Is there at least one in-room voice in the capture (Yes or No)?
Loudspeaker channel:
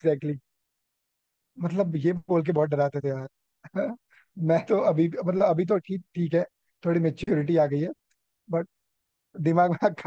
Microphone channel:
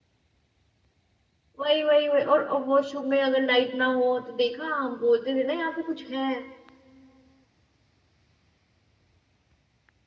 Yes